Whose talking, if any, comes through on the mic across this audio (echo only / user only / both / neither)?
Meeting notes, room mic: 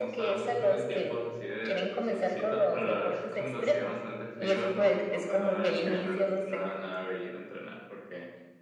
both